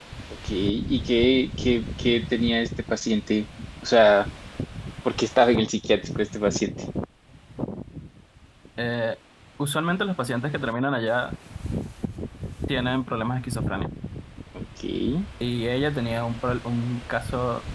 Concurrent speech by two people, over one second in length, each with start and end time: none

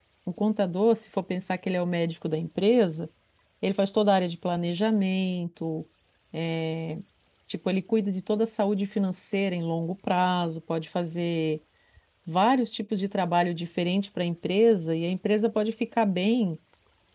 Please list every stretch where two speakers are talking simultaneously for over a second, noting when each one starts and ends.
none

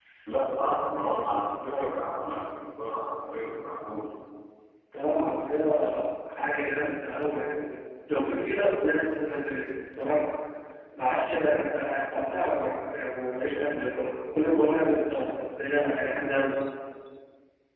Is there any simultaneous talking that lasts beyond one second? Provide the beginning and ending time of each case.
none

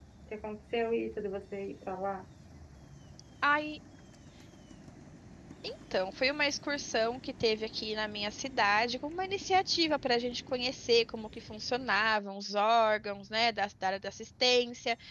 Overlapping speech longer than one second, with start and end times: none

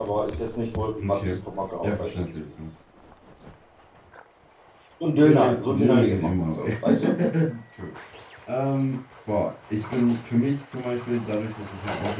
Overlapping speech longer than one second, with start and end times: 5.2-7.2

